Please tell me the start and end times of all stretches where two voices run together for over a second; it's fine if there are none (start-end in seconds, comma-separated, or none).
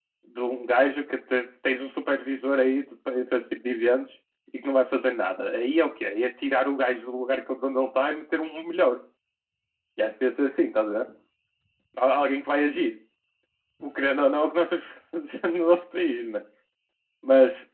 none